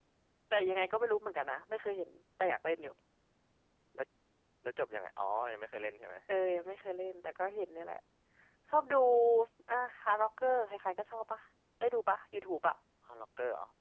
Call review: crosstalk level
none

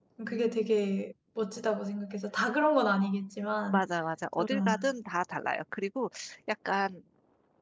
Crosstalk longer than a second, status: none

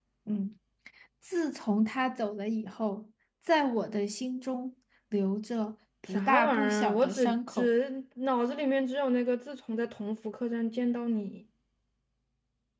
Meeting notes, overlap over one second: present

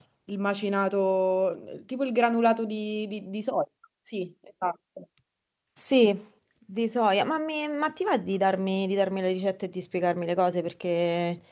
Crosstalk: none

